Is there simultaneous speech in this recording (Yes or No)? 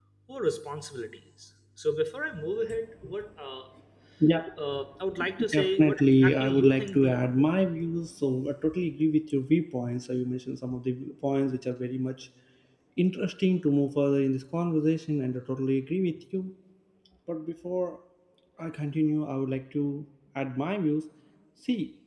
Yes